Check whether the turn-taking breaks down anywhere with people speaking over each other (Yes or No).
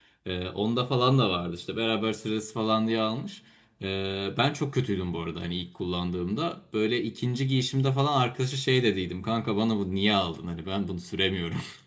No